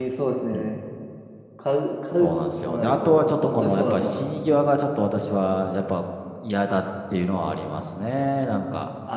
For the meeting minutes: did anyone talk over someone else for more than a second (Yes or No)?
Yes